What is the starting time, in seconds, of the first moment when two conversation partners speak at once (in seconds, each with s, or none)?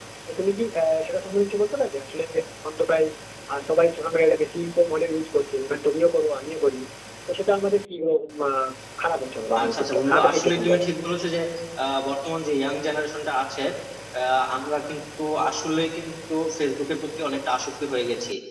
9.6 s